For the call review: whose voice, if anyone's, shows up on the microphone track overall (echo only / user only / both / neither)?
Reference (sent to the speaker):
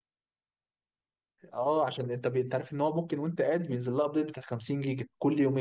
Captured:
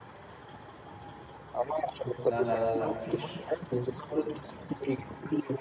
both